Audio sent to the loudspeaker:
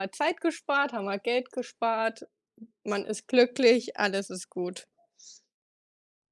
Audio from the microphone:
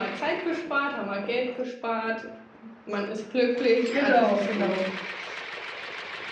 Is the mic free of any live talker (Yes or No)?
No